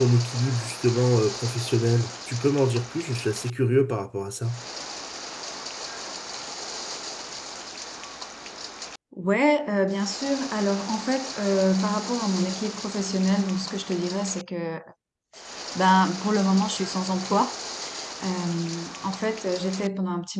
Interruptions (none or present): none